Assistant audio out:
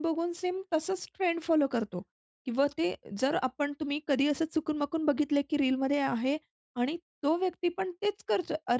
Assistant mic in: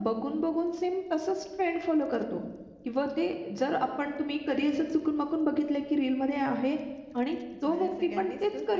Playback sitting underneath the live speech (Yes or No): No